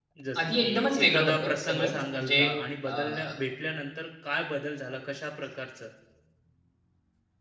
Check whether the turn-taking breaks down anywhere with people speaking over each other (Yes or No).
Yes